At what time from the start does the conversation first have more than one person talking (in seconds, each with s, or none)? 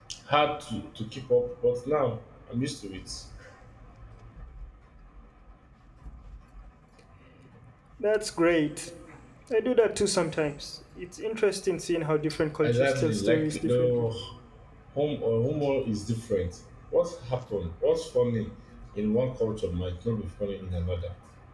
12.6 s